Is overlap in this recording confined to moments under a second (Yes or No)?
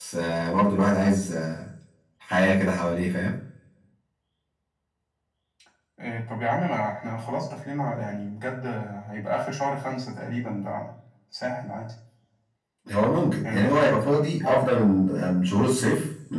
No